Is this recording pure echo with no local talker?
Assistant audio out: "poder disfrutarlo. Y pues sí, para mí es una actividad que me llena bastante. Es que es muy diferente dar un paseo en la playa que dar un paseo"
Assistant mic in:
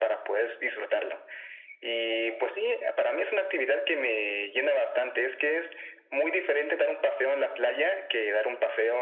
Yes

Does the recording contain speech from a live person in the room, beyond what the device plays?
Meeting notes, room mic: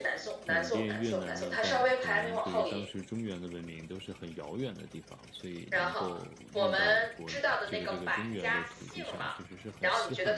Yes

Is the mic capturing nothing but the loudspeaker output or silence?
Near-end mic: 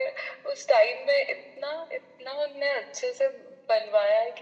Yes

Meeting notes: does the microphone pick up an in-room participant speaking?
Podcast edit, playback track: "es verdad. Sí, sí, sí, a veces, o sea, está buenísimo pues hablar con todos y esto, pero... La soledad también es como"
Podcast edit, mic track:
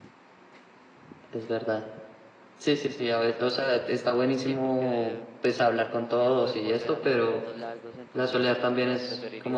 Yes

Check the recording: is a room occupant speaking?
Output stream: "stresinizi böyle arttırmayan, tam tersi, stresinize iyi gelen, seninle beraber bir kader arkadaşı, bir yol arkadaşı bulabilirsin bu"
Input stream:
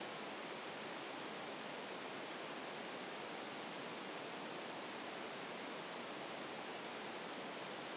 No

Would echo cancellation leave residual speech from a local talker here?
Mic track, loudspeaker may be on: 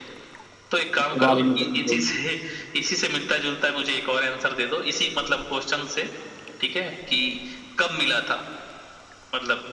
Yes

